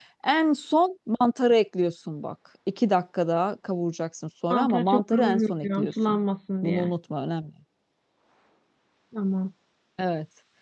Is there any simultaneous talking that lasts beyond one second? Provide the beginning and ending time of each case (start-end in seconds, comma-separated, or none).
4.5-6.2